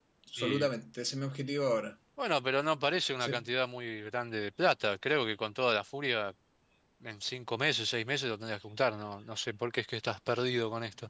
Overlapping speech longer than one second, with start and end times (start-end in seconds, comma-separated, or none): none